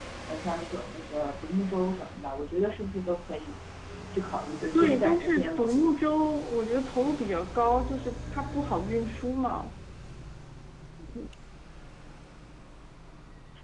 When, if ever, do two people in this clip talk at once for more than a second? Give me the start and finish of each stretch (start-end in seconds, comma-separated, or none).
4.7-6.0